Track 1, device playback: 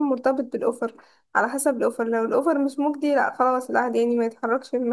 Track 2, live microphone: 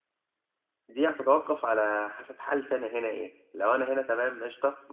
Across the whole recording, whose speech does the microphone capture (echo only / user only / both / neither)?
user only